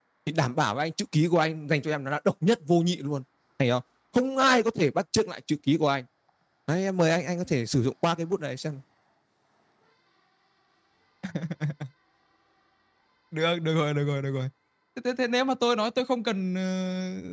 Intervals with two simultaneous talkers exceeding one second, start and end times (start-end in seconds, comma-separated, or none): none